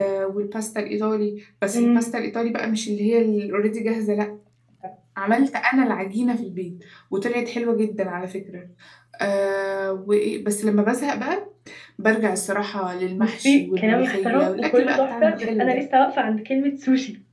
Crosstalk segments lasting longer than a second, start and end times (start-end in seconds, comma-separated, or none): 13.2-15.8